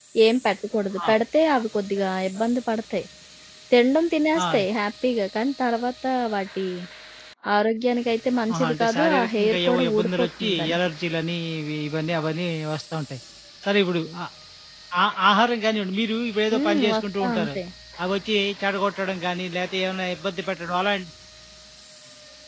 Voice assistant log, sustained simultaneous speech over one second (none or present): present